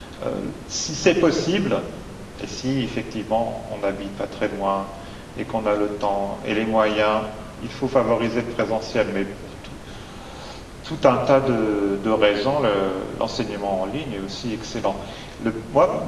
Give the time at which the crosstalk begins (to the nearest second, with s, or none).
none